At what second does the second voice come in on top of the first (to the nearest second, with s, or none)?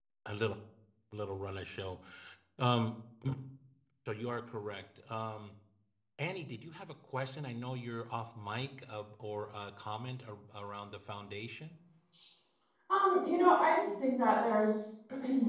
none